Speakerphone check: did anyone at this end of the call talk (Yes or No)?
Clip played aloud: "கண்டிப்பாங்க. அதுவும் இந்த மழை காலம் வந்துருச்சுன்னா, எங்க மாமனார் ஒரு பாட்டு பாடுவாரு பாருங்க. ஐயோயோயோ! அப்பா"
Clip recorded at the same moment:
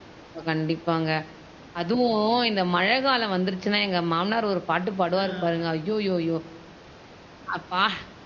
Yes